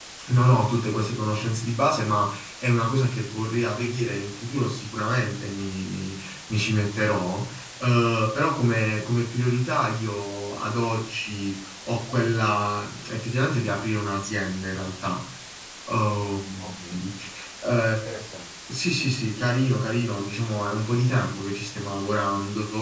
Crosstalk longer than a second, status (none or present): none